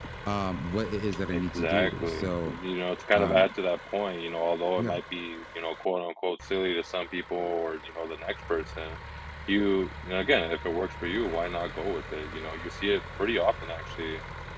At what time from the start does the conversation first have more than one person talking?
1.3 s

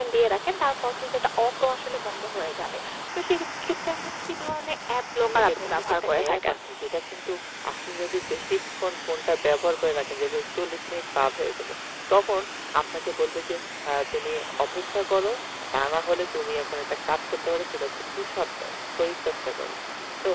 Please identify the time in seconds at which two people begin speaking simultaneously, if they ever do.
5.3 s

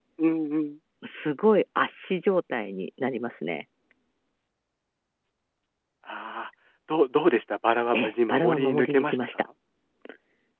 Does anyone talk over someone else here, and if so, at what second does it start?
7.9 s

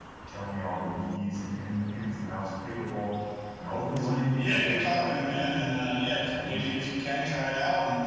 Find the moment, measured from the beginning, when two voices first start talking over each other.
4.4 s

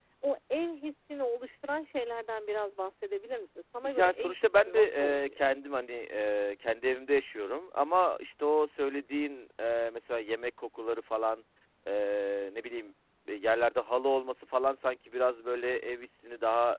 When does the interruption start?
3.8 s

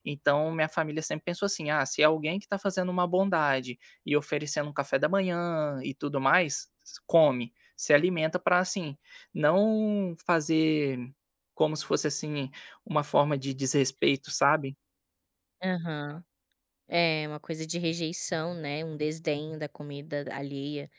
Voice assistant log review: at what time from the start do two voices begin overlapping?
none

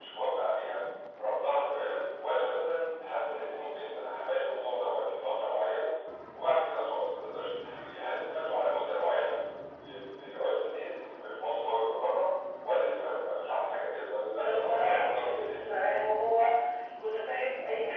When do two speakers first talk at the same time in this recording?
14.4 s

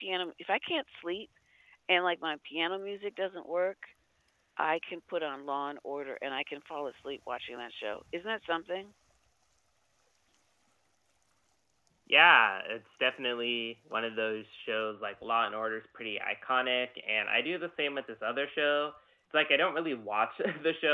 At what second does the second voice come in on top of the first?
none

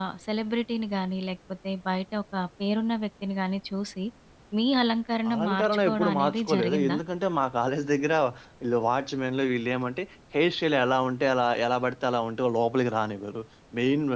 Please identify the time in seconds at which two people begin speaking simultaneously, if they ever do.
5.3 s

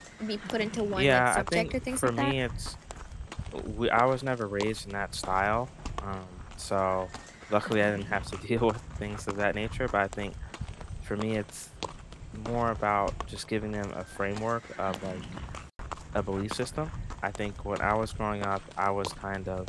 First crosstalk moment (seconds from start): 1.0 s

